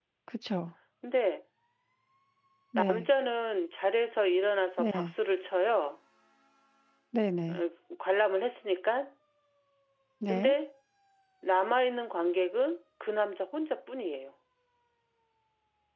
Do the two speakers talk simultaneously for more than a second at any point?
No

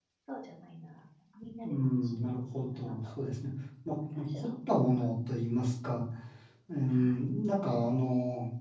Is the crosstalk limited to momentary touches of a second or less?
No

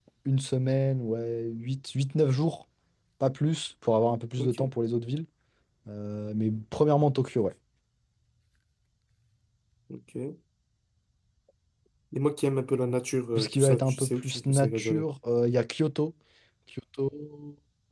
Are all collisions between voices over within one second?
No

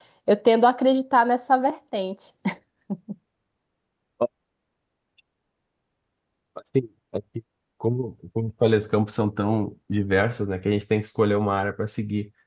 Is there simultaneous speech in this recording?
No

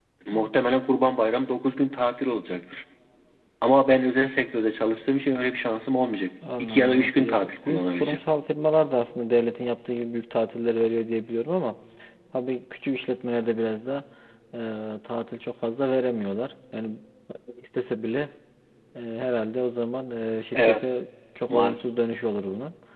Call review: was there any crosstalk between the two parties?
Yes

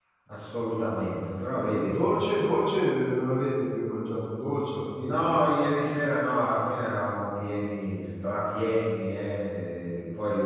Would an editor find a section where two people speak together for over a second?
No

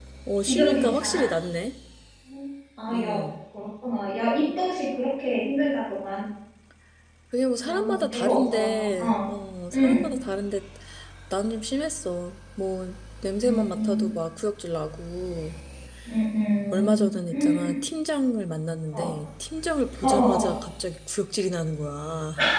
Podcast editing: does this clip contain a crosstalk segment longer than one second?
Yes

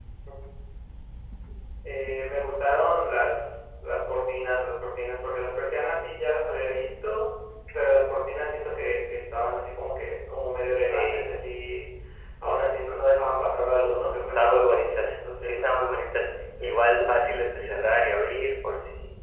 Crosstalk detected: Yes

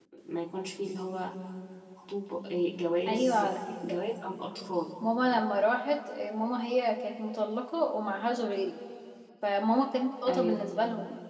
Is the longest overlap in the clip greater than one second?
No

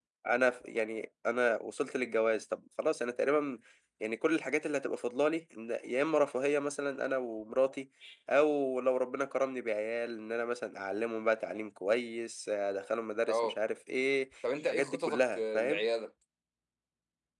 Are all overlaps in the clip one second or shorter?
No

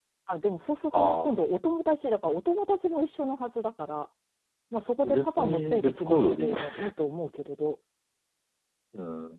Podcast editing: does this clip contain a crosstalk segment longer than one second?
Yes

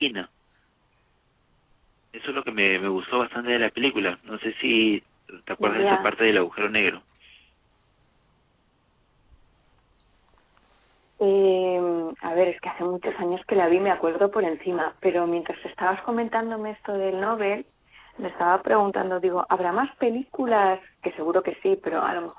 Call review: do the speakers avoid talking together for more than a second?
Yes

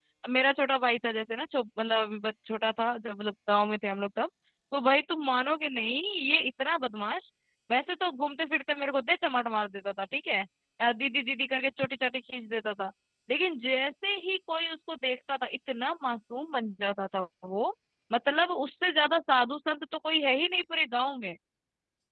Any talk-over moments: No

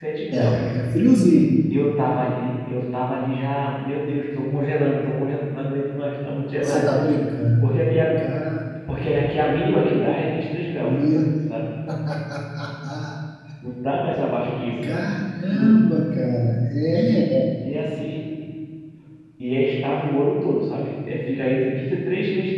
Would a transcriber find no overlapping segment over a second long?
Yes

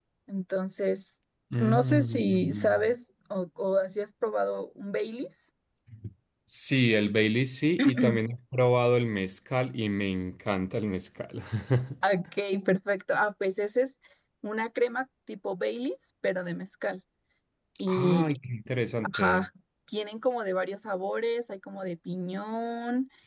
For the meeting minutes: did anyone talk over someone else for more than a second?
Yes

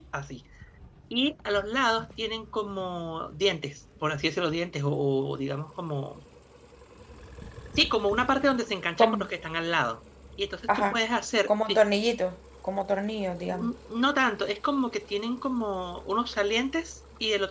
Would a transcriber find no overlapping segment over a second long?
Yes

